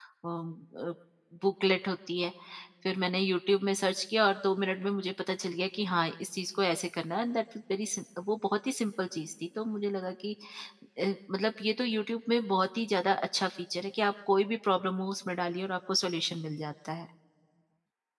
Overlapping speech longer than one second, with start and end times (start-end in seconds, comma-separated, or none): none